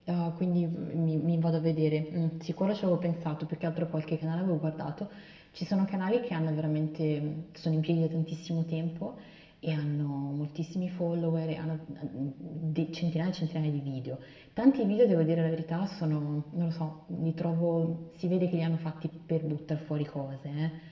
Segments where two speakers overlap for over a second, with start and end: none

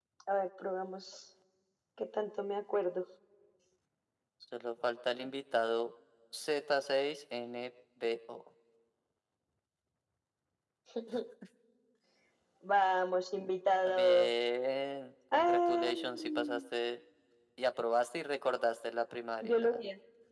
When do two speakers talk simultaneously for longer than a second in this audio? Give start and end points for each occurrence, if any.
15.3-16.6

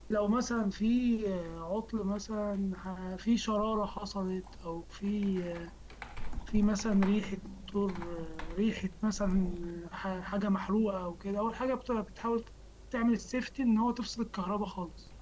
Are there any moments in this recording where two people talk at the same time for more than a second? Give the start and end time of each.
none

